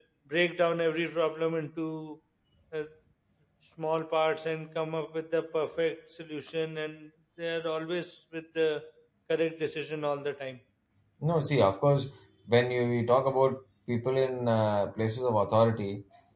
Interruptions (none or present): none